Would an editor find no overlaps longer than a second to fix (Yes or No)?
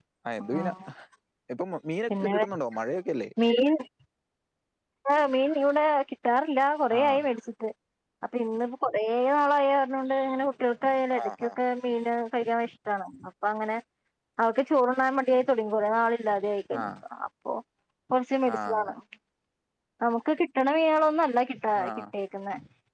Yes